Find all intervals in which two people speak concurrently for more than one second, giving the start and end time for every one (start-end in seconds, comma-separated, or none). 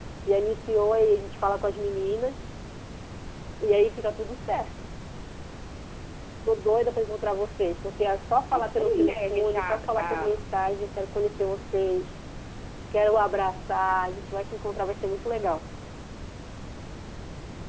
8.5-10.4